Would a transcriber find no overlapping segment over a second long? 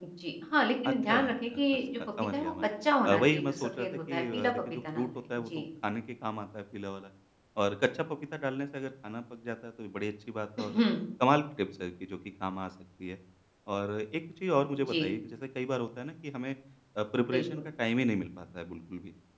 No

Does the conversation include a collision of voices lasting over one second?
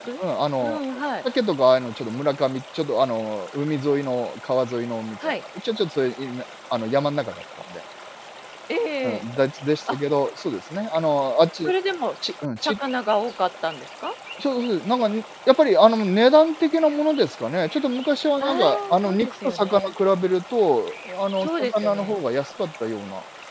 Yes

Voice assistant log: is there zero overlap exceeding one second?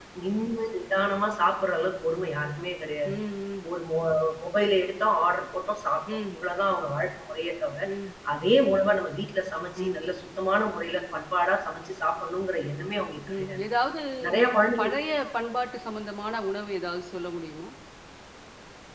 Yes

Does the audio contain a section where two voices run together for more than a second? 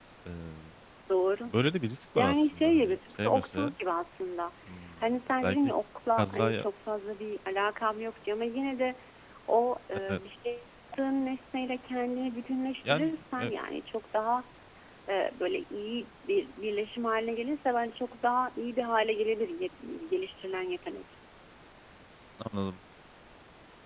Yes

